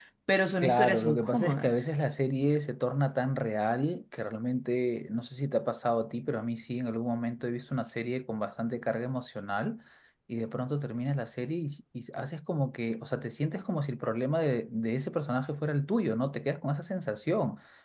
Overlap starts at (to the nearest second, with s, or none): 1 s